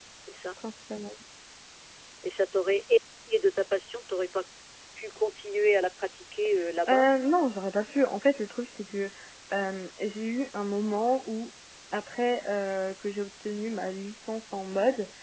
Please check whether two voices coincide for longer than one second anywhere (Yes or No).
No